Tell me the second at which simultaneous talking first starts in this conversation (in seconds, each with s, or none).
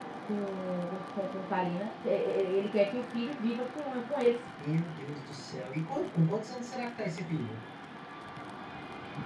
none